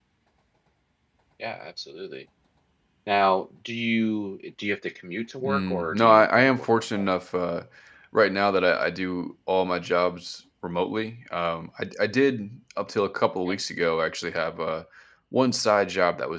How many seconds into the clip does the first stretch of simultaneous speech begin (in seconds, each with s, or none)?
5.4 s